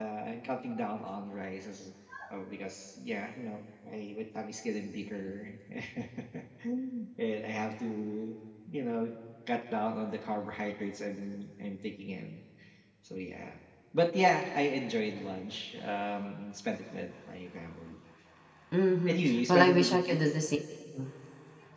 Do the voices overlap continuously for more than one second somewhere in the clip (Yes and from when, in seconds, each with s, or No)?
Yes, from 19.1 s